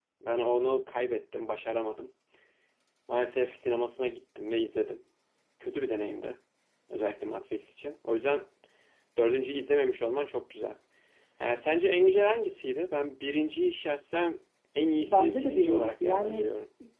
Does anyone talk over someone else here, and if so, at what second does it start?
15 s

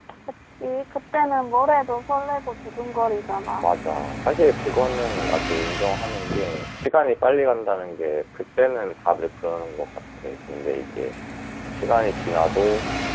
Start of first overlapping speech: none

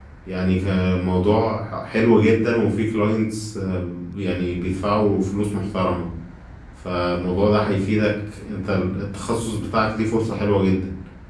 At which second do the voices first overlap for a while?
none

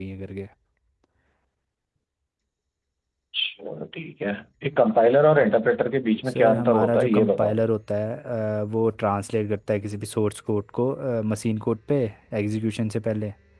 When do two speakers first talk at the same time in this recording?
6 s

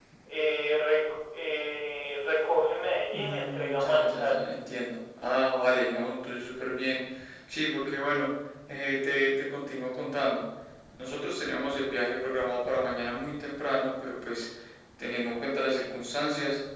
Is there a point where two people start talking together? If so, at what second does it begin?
3 s

